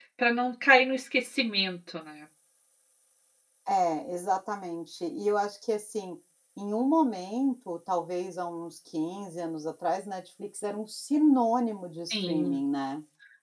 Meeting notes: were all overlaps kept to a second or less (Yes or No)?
Yes